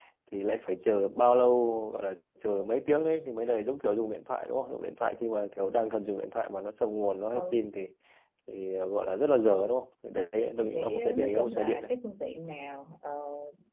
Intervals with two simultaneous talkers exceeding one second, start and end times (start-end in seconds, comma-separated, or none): 10.6-11.9